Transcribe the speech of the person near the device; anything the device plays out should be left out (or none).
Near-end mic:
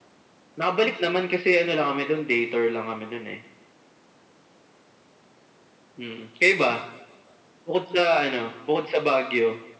none